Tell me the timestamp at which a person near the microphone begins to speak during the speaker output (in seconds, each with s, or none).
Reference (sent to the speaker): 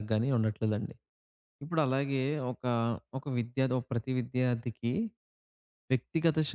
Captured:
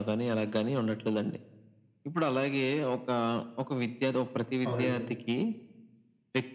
4.7 s